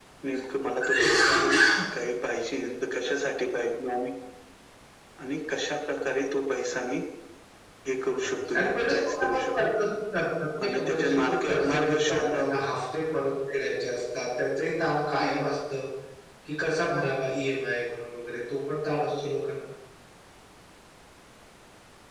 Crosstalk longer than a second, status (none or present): present